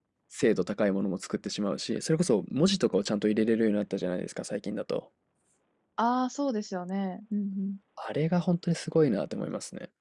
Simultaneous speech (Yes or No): No